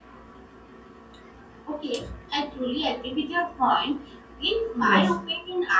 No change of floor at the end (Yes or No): Yes